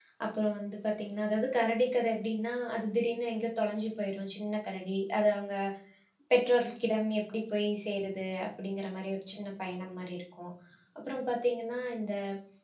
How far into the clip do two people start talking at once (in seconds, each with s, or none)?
none